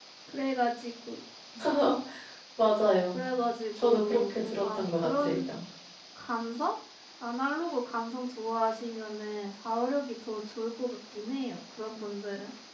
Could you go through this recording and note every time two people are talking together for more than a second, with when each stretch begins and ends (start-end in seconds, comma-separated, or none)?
3.8-5.3